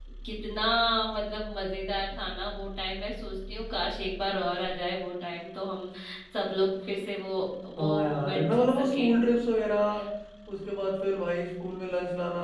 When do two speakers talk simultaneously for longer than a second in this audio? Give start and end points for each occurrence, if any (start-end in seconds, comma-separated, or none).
7.8-9.1